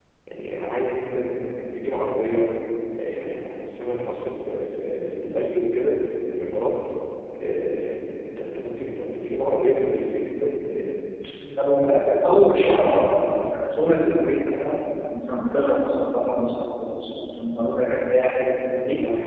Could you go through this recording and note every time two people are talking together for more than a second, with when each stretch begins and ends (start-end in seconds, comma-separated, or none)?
none